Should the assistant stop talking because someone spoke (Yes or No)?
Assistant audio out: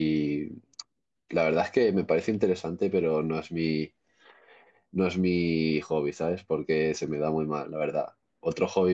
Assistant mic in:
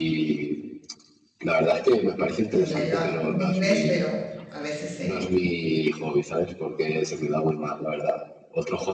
Yes